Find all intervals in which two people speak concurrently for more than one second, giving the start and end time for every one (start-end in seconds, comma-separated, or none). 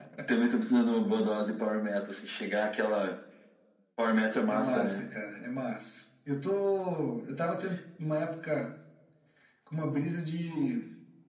none